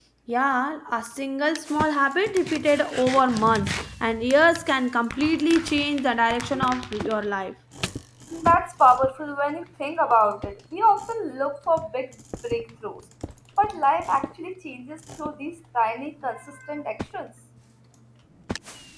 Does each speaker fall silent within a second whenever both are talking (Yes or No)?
Yes